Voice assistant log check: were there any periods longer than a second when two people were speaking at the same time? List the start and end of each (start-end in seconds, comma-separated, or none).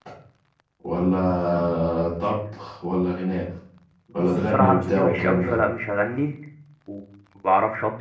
4.2-5.5